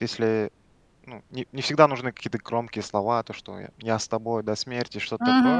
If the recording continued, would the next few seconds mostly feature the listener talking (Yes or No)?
No